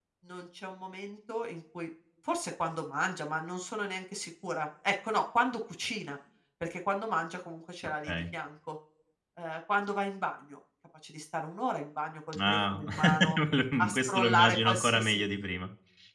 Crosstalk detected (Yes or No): Yes